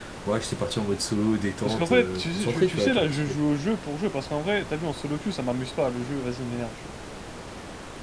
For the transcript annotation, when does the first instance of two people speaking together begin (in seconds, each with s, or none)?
1.6 s